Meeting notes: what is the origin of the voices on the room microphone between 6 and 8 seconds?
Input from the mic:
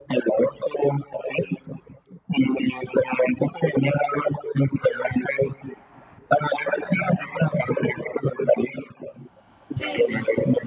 echo only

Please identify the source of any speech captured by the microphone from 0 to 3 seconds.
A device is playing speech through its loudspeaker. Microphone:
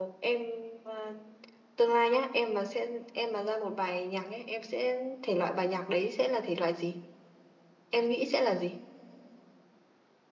user only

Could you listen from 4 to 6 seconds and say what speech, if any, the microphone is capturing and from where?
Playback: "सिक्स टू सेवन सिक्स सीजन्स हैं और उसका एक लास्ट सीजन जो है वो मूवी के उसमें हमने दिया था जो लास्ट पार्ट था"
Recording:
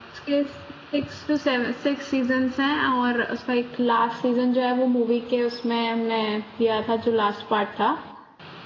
echo only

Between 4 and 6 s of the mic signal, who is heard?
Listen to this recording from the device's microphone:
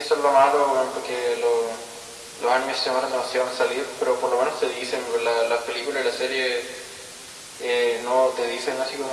echo only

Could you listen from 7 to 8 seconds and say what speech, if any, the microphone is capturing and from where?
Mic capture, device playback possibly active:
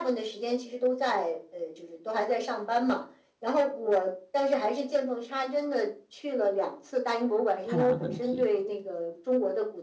both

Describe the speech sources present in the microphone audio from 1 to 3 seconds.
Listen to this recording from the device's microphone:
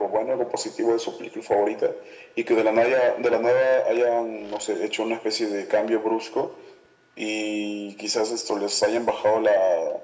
echo only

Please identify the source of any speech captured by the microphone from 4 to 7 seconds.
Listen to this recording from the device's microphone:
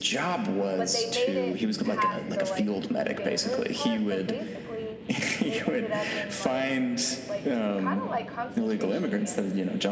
both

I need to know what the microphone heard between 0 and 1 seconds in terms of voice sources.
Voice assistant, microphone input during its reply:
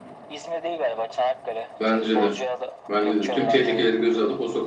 echo only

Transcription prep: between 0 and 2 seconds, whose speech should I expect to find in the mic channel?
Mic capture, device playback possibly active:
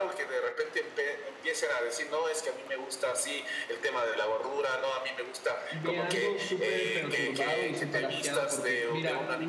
echo only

